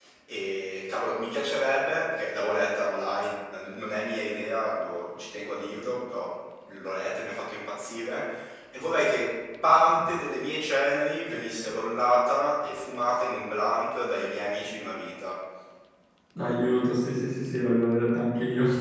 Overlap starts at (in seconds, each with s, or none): none